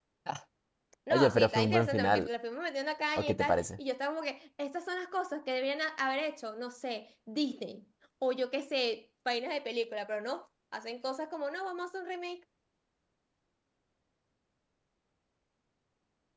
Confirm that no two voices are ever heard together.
No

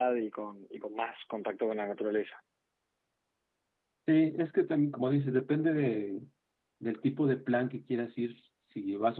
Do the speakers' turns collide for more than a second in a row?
No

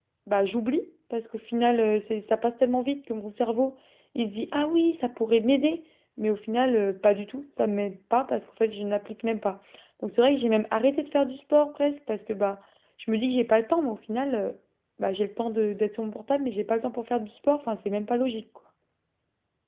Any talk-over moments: No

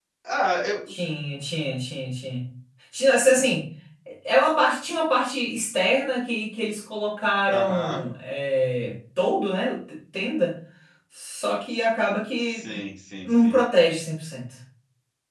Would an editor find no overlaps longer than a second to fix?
Yes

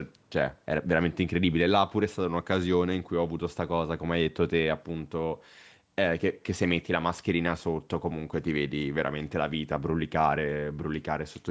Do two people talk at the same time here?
No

